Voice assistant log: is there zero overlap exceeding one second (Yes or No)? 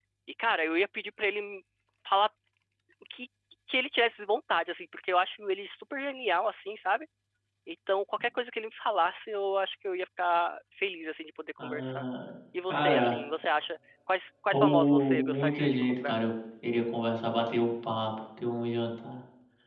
No